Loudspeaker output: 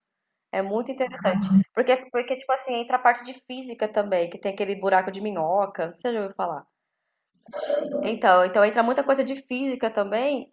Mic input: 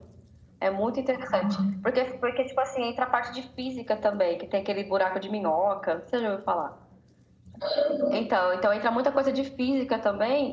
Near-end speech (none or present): none